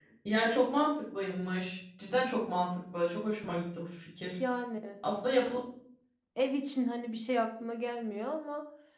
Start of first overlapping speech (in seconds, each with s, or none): none